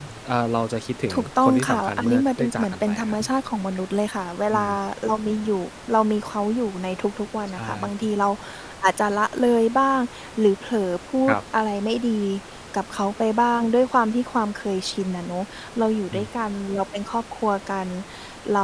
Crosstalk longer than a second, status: present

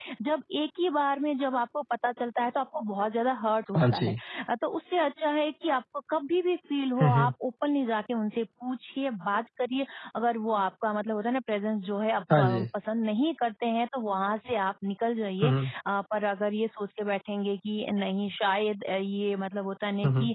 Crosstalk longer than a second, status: none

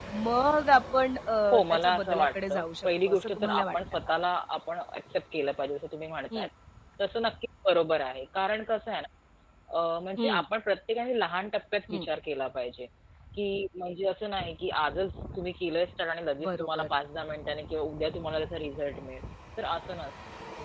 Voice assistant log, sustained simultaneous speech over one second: present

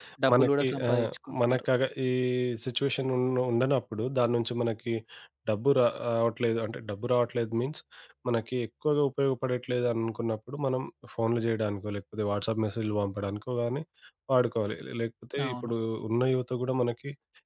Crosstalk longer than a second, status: present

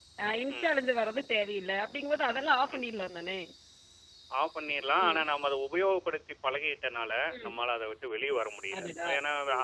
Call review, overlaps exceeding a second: none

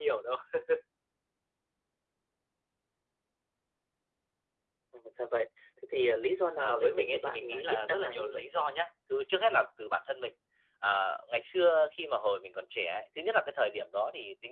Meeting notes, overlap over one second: present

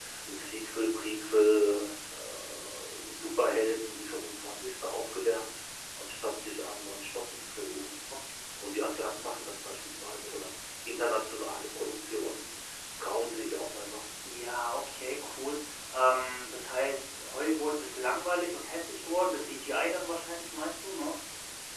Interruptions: none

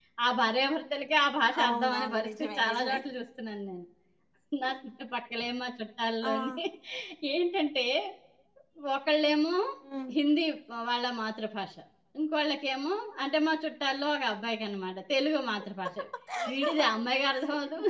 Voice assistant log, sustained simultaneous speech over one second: present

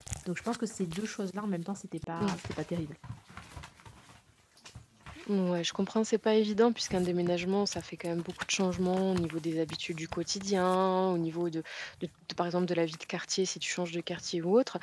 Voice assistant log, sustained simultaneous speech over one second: none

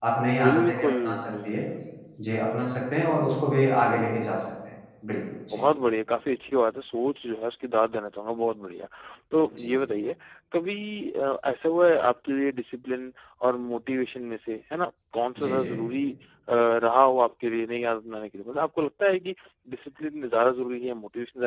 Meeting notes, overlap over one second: present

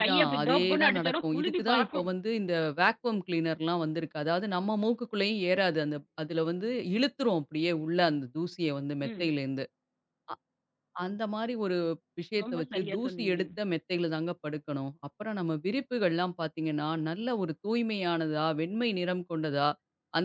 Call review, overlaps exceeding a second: present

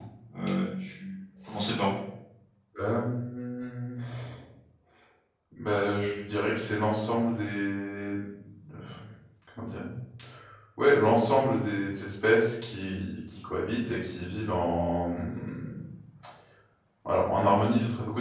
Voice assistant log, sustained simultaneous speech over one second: none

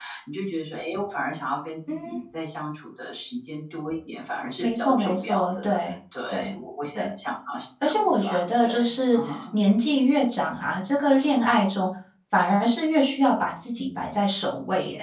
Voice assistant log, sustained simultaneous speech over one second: present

